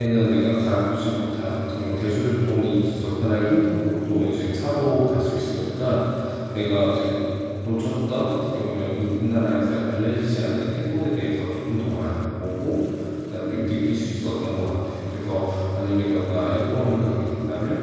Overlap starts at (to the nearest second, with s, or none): none